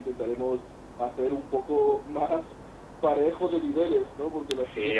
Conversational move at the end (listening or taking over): taking over